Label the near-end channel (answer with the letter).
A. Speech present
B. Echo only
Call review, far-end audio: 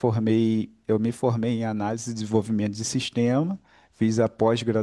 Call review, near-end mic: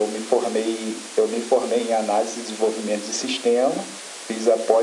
B